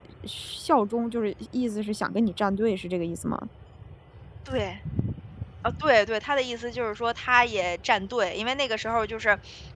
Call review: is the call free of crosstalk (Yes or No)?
Yes